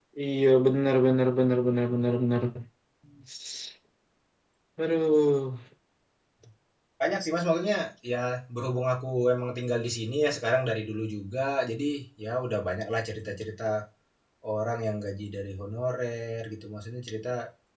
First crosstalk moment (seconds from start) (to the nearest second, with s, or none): none